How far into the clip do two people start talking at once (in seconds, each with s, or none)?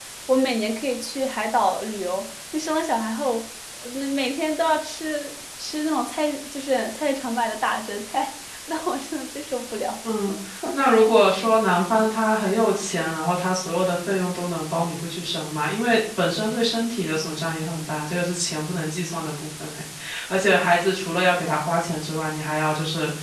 none